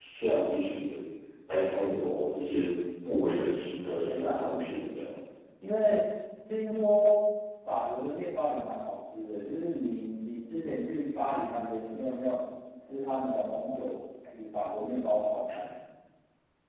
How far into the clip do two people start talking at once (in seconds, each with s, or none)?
3.8 s